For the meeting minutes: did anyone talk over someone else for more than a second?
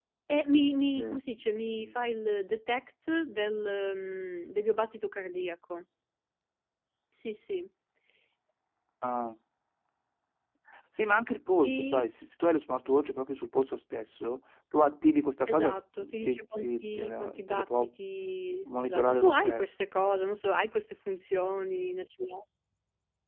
Yes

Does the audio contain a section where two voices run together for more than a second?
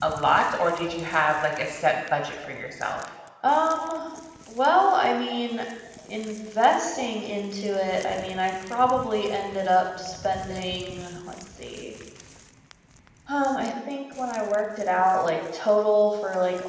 No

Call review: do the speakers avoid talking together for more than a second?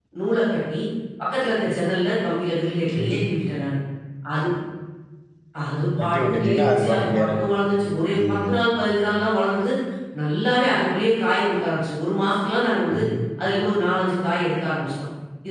No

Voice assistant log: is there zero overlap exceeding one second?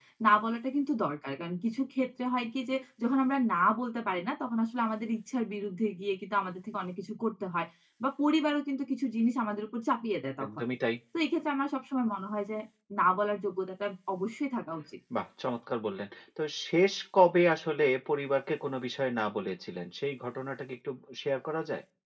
Yes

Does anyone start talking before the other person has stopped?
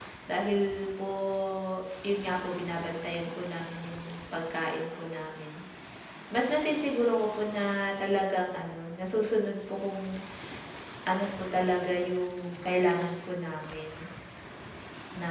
No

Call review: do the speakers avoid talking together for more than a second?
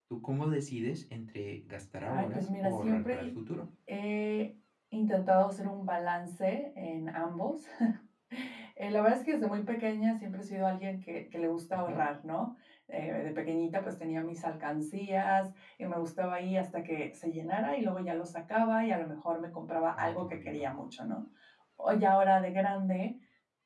No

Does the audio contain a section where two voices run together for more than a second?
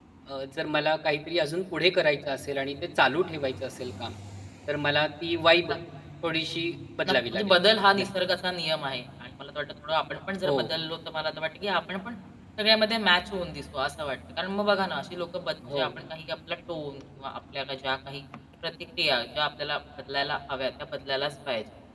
No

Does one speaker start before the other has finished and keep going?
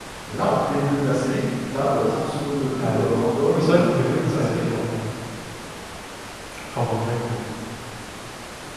Yes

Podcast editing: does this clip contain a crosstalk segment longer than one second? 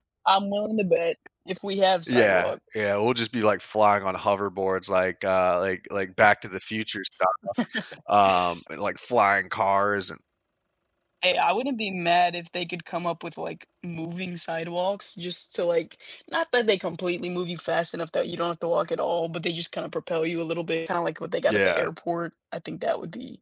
No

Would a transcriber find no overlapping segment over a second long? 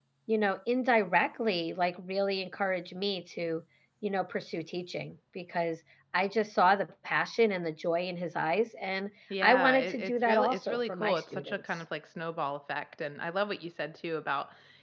No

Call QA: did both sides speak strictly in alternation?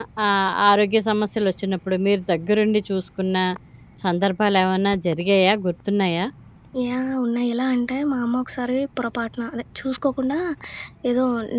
Yes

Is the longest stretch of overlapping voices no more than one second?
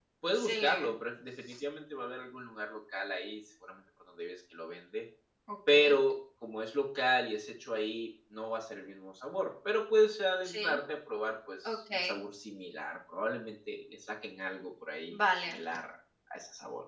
Yes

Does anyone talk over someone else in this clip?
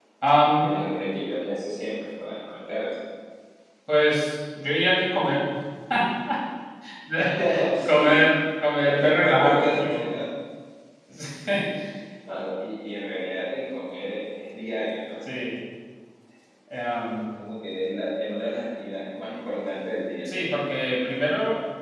Yes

